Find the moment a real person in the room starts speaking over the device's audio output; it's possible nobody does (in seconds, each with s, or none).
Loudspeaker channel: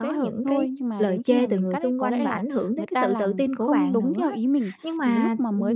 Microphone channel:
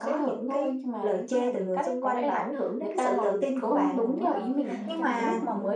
3.4 s